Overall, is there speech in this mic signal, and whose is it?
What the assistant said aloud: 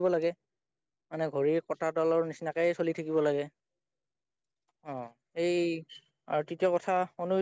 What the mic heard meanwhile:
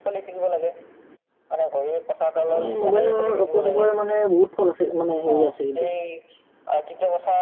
both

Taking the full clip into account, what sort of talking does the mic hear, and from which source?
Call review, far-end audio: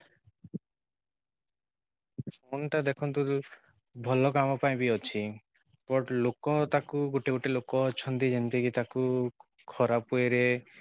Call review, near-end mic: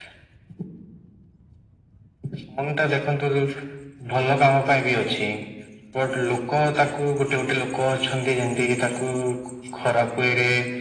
echo only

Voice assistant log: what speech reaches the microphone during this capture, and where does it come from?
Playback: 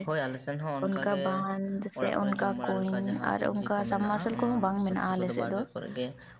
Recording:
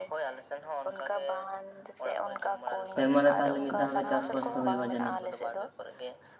both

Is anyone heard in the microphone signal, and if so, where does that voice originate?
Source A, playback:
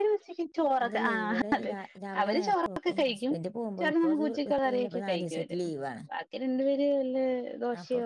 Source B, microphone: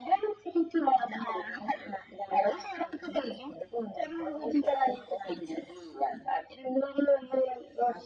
echo only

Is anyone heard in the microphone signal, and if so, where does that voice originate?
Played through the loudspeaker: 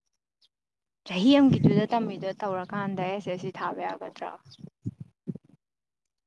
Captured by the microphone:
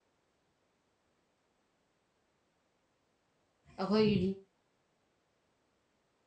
user only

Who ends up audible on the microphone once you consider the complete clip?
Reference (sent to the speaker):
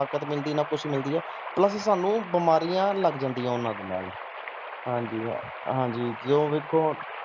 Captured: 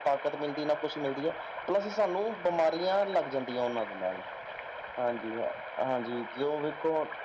echo only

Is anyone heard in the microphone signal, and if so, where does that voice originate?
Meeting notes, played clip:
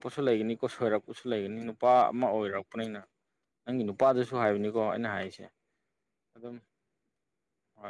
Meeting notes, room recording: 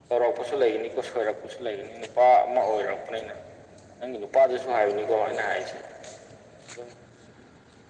echo only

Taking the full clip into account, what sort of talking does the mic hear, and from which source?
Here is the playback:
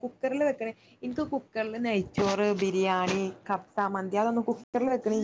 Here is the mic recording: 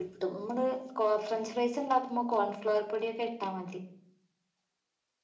user only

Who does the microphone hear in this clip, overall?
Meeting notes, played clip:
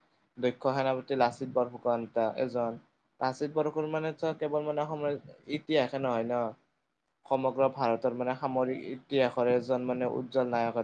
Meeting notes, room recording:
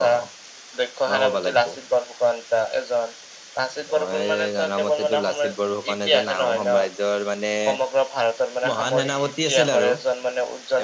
both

